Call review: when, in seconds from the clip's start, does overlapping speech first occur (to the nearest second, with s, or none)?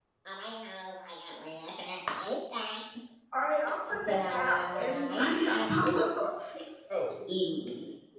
4 s